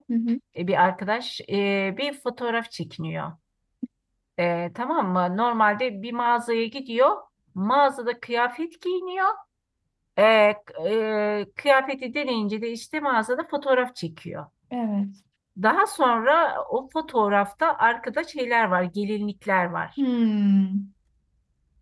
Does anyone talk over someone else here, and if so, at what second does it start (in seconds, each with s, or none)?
none